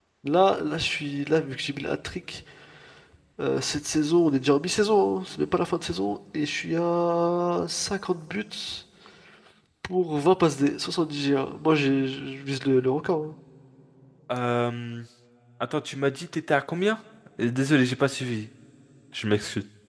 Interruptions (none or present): none